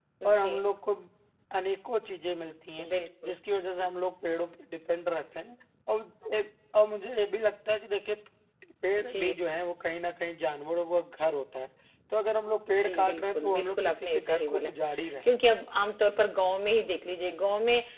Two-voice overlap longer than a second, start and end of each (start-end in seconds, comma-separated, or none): 12.7-14.7